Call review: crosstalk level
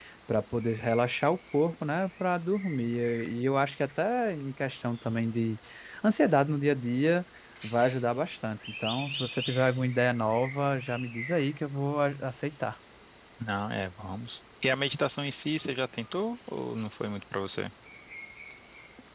none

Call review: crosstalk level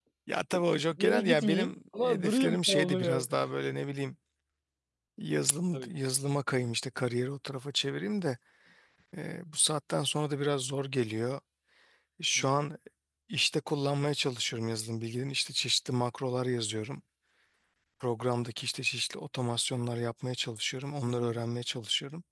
present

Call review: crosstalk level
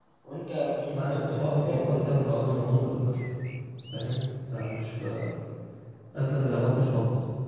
present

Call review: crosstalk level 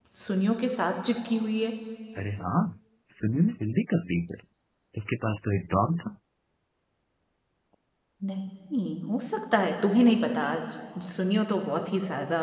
none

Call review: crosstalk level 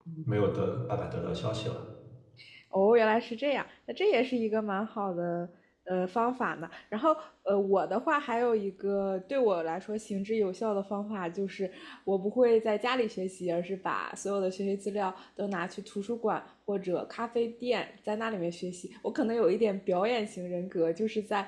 none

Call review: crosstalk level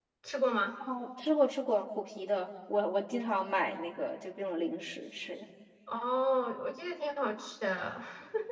none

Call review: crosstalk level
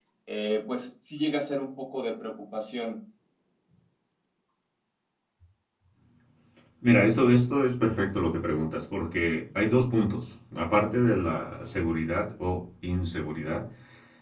none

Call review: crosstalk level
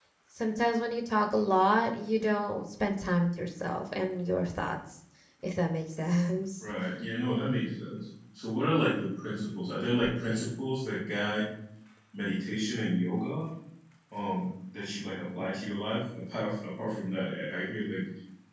none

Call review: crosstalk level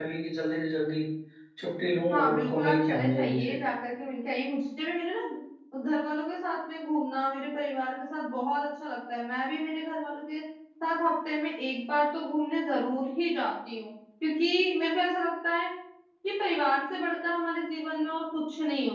present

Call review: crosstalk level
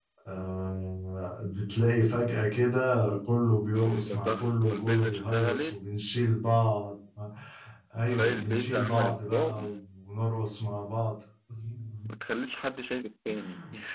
present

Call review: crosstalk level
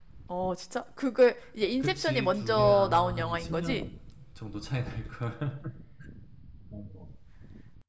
present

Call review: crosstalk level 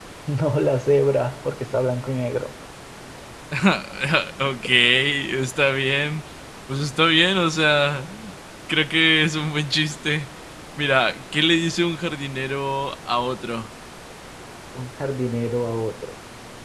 none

